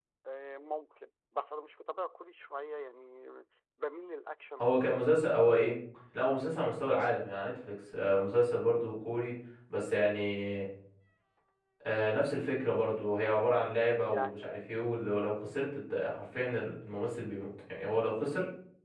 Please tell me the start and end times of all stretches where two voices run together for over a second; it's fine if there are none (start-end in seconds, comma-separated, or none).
none